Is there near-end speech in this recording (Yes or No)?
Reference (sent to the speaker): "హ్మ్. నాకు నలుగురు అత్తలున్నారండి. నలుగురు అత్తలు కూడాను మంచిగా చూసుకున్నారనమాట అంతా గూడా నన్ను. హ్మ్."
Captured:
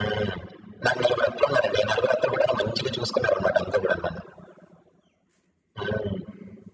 No